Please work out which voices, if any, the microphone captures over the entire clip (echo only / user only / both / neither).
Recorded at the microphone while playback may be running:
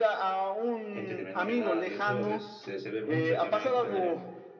both